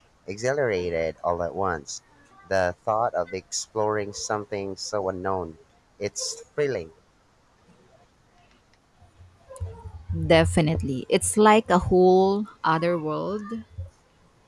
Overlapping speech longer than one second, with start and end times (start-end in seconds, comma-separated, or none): none